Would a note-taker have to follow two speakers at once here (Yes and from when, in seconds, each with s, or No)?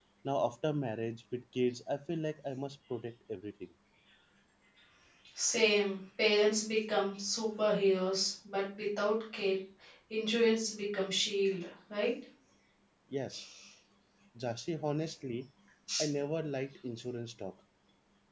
No